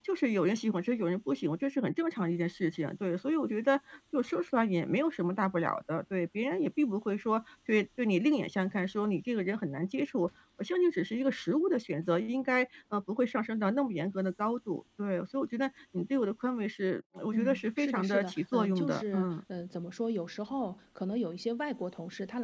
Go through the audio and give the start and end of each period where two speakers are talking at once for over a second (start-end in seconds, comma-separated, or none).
17.3-19.3